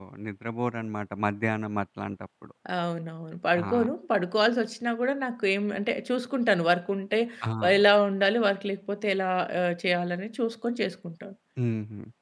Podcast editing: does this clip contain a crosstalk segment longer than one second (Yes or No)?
No